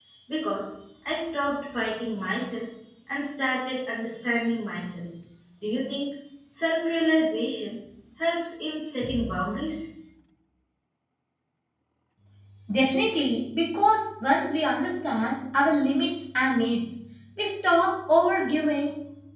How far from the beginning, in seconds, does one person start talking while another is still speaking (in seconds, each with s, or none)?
none